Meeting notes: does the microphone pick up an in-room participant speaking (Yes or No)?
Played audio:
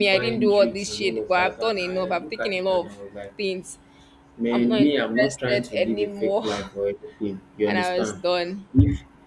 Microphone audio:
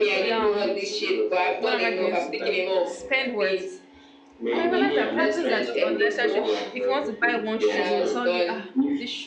Yes